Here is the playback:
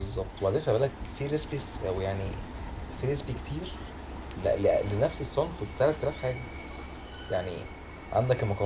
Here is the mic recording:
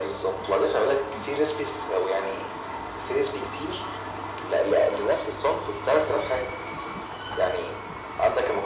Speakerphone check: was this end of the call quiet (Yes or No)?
Yes